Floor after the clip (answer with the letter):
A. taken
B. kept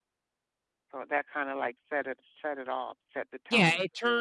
A